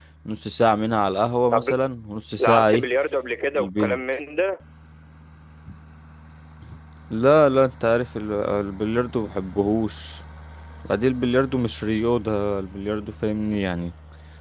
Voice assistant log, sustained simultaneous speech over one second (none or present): none